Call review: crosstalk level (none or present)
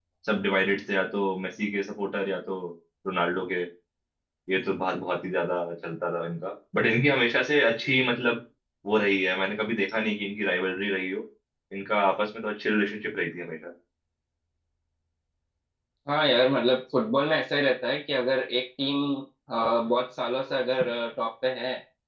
none